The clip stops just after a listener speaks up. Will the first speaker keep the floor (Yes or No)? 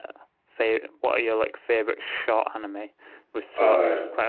Yes